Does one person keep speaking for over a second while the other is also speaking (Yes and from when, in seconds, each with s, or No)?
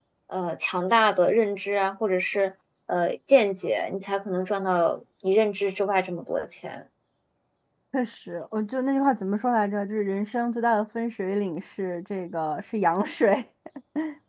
No